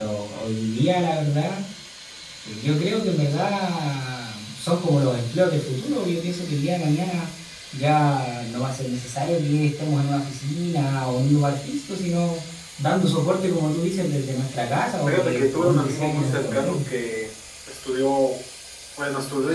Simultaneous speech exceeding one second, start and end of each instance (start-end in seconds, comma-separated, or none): 15.1-16.8